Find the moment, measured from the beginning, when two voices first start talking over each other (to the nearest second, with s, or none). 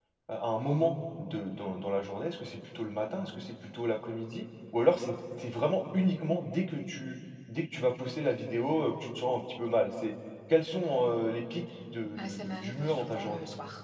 12 s